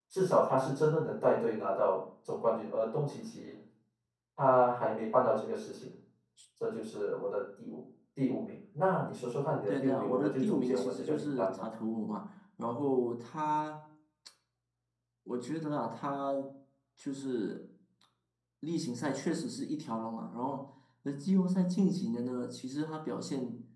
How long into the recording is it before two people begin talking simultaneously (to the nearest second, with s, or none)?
10 s